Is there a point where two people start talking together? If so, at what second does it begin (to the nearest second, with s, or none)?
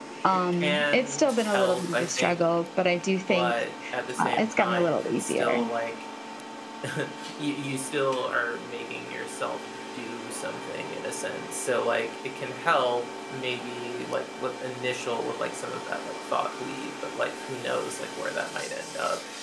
1 s